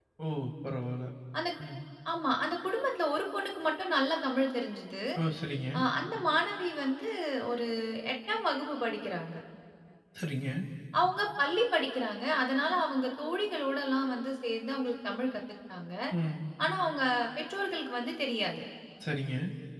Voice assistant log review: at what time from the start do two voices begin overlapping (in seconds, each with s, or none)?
none